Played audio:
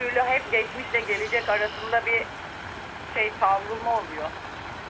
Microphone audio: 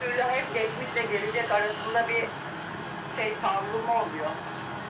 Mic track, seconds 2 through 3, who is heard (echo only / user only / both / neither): echo only